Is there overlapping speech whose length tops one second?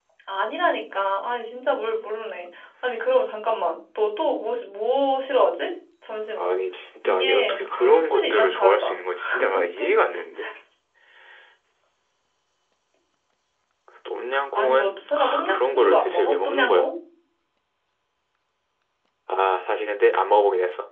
Yes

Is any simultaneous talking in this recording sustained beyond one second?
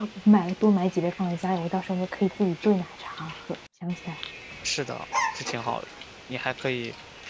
No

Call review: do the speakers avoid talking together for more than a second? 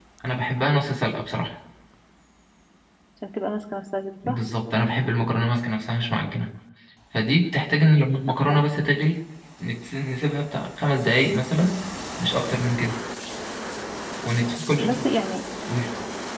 Yes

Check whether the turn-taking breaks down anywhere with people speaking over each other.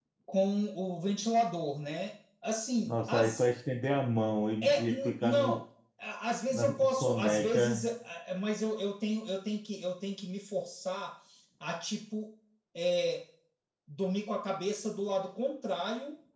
Yes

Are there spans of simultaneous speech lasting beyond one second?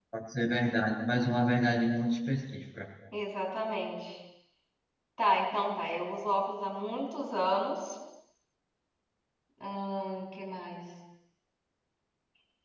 No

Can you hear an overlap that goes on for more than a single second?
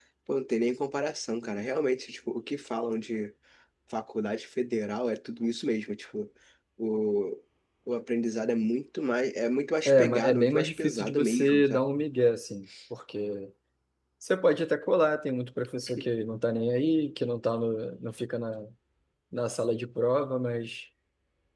Yes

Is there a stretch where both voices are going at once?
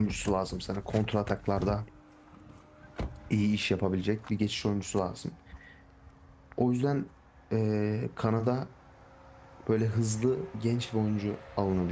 No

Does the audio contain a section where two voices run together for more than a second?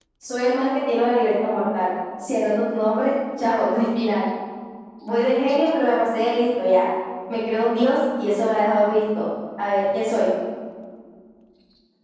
No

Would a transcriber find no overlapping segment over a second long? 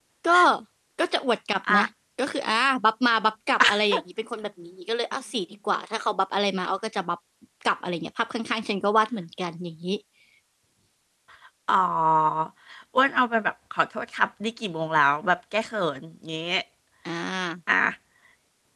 Yes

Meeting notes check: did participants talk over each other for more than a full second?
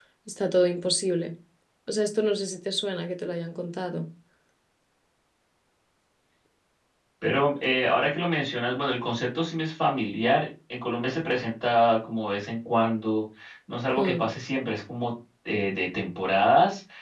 No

